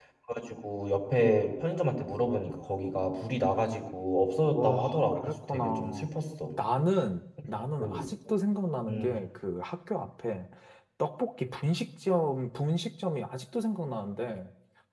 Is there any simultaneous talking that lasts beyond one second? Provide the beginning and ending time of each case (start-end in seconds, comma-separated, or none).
4.5-6.1